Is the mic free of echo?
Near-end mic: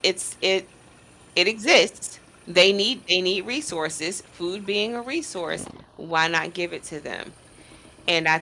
Yes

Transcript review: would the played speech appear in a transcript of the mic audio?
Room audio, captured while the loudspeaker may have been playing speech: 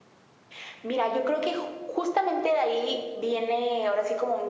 Yes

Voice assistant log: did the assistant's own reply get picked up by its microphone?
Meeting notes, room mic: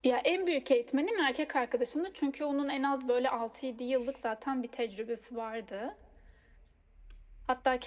Yes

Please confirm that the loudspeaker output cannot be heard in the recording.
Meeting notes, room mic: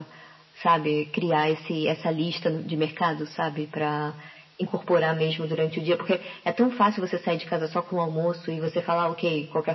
No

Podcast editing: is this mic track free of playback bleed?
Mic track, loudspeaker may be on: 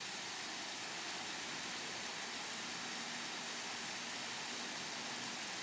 Yes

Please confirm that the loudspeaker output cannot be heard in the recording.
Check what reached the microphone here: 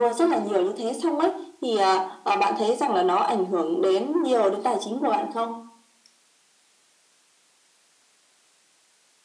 No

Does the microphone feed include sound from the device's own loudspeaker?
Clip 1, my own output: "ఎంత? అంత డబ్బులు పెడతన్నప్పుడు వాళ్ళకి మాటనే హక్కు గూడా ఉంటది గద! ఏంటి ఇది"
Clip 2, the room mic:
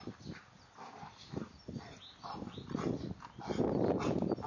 No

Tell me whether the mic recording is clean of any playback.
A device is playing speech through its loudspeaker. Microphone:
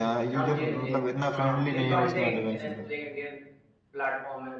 No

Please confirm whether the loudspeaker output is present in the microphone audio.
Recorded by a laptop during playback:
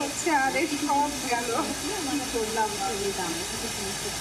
Yes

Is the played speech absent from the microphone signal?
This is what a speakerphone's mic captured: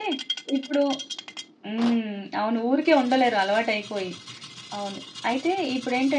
Yes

